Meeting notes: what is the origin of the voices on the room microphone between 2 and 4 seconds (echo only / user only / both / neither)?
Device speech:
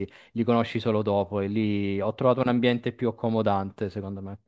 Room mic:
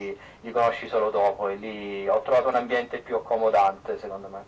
echo only